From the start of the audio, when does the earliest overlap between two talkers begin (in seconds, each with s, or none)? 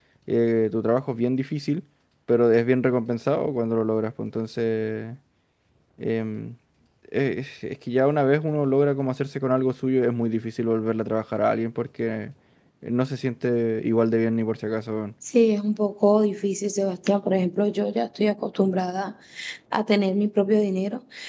none